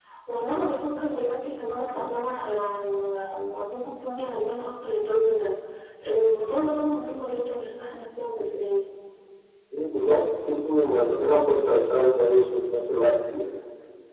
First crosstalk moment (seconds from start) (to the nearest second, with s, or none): none